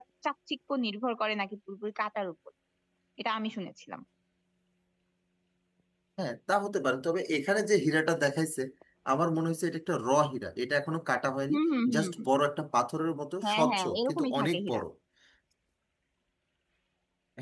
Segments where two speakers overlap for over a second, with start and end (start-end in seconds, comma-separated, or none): 13.4-14.8